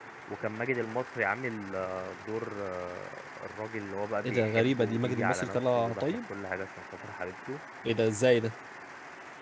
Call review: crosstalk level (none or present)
present